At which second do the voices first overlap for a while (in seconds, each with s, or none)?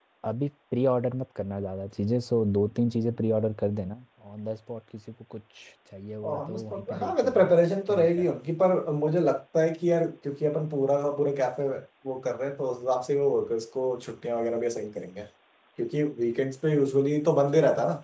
6.3 s